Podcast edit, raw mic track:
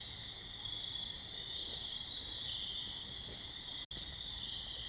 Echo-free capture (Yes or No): Yes